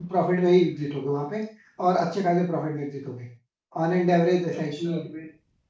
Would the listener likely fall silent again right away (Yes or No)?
Yes